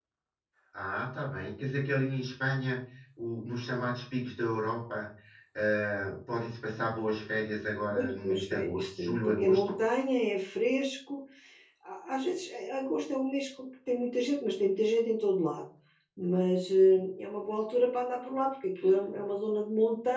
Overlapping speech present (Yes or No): Yes